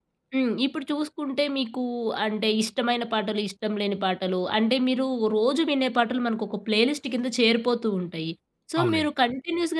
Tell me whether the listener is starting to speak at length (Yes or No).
No